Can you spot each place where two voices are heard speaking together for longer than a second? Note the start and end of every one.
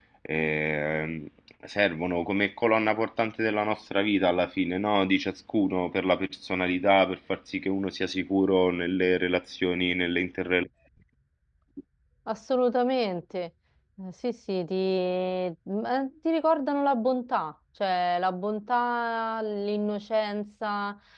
none

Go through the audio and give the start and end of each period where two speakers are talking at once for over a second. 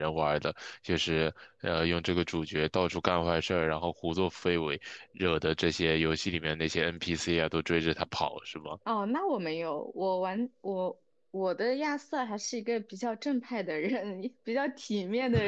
none

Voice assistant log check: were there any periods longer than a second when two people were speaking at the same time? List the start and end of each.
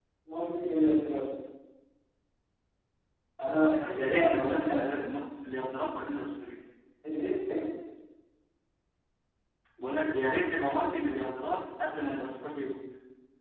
3.5-5.1

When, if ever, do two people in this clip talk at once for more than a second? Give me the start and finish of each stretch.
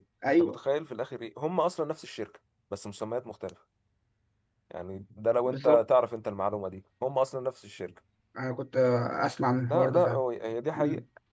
none

